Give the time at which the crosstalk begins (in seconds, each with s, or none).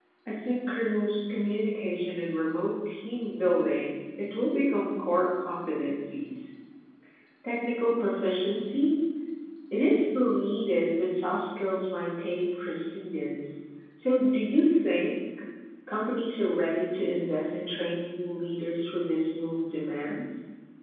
none